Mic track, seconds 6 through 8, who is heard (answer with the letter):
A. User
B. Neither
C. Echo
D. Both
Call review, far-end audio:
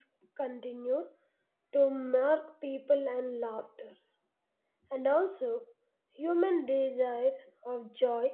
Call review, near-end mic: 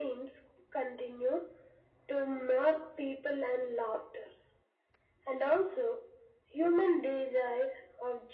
C